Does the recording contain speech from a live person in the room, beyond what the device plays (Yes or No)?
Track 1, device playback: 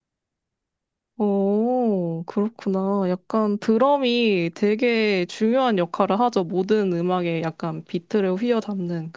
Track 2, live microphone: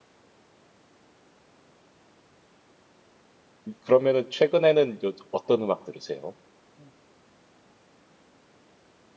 Yes